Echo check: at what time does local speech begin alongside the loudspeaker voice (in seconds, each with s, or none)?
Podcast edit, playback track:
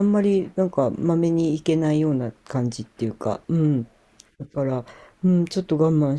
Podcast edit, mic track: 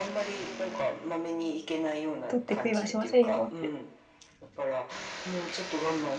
2.3 s